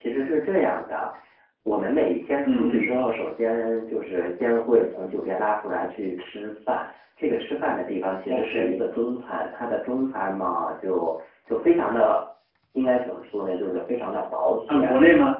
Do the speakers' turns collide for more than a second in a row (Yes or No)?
No